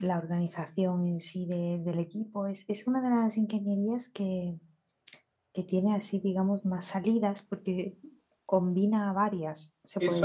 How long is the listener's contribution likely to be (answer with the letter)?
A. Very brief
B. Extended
B